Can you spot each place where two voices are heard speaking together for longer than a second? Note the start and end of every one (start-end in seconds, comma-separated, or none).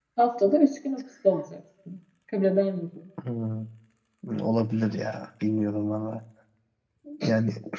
none